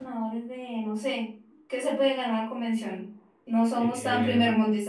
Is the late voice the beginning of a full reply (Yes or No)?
No